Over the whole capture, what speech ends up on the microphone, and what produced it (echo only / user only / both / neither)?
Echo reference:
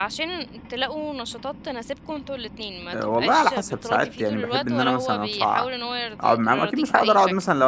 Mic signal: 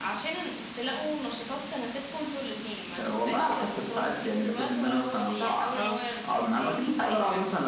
both